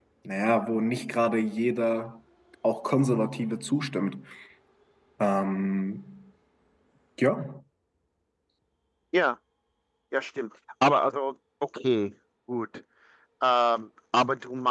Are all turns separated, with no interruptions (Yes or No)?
Yes